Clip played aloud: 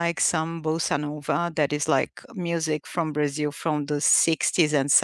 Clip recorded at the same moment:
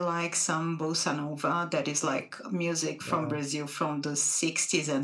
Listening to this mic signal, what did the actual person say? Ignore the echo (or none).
Wow.